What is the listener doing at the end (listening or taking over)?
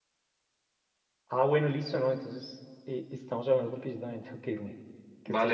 taking over